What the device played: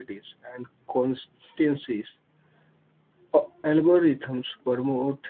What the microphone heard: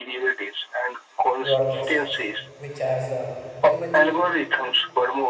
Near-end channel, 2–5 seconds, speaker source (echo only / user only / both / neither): both